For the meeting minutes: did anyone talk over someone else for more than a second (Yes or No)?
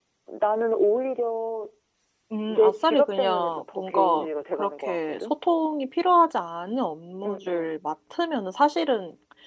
Yes